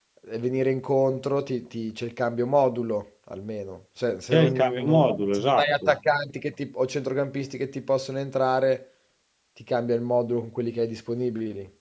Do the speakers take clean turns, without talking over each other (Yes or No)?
No